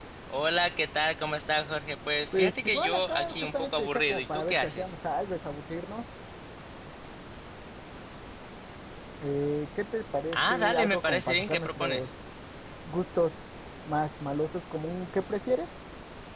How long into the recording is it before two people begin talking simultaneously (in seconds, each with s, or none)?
2.3 s